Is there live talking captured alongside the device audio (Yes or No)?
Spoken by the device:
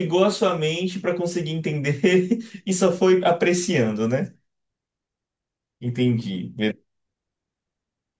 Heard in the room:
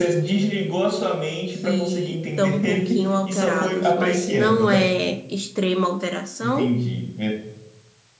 Yes